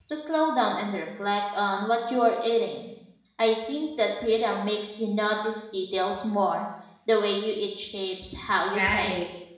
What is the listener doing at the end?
taking over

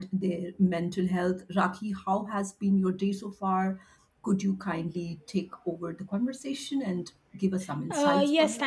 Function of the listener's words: taking over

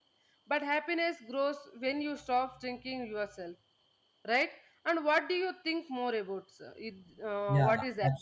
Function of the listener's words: taking over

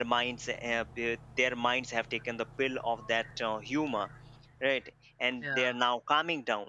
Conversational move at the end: listening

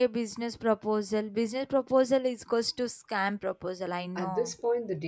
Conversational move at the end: taking over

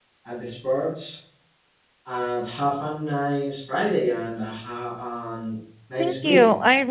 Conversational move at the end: taking over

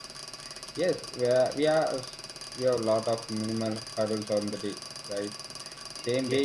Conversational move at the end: listening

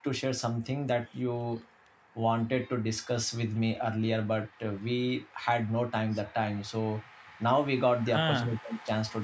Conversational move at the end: listening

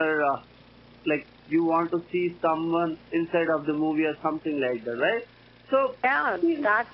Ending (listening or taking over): taking over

